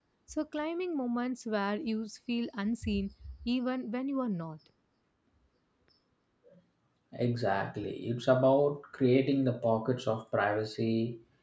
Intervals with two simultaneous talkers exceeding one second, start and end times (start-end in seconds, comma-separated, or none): none